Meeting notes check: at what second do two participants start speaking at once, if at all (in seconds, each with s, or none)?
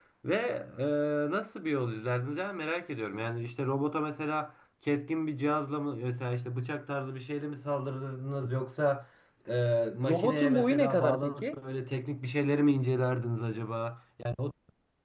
10.1 s